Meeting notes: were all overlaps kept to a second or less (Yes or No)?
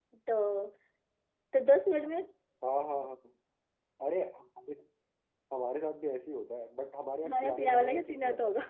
No